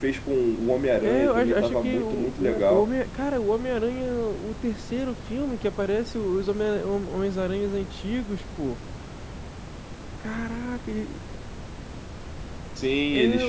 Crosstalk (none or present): present